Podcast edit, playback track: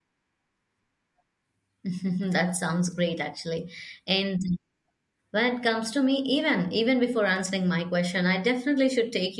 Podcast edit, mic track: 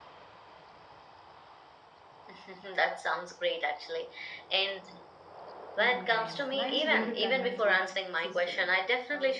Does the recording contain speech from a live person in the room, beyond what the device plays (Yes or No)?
Yes